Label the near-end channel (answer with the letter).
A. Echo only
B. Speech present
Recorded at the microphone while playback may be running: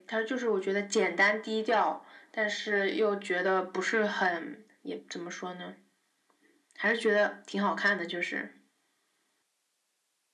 A